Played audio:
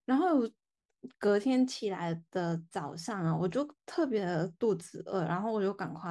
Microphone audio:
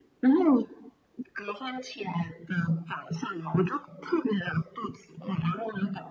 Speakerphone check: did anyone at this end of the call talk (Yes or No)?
No